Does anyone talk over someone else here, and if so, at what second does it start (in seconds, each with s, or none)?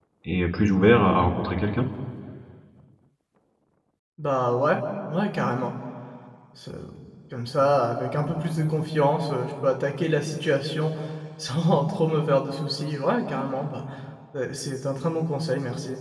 none